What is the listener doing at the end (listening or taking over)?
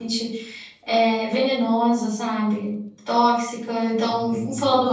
listening